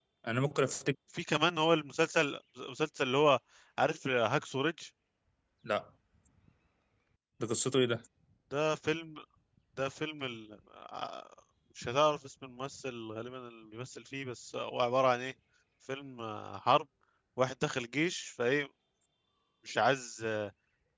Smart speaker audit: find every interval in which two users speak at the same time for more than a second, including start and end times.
none

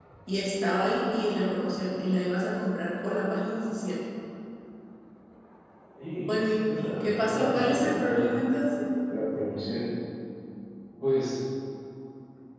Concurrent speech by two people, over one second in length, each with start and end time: 6.3-8.2

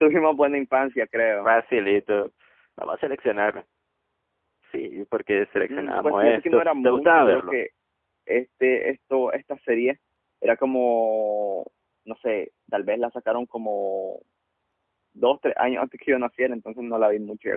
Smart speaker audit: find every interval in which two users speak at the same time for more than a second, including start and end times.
5.7-7.6

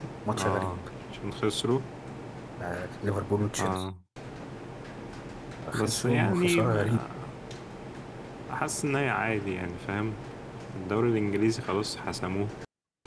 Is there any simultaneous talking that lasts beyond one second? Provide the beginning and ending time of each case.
5.7-7.0

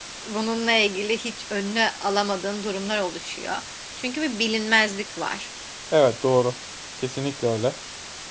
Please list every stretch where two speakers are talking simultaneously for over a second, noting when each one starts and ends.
none

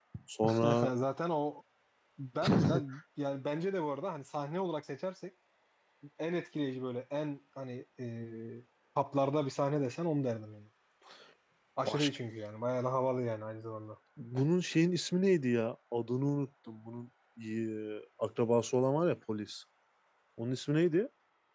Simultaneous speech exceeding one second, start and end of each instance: none

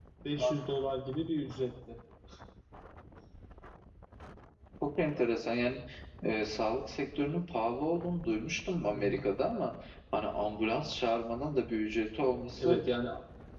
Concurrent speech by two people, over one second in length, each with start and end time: none

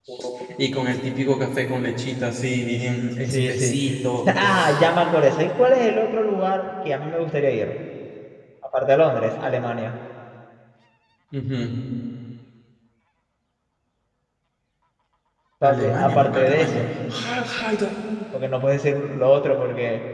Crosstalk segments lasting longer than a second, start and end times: 15.6-16.8

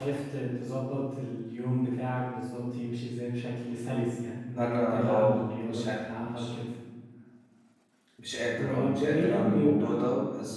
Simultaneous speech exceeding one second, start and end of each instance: 4.6-6.5, 8.6-10.0

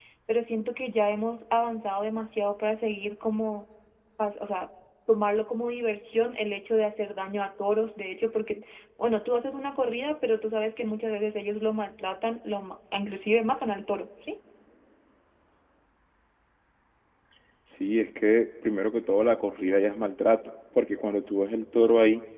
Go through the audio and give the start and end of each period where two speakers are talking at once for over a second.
none

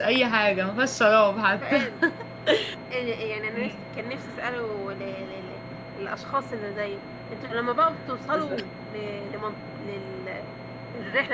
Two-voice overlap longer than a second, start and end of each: none

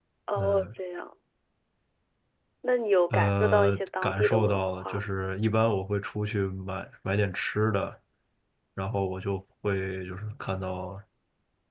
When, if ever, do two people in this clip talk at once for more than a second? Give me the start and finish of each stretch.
3.1-5.1

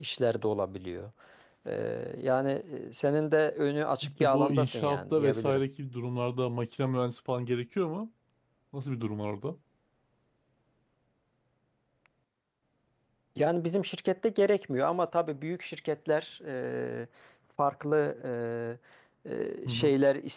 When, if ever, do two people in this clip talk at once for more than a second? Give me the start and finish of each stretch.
4.0-5.6

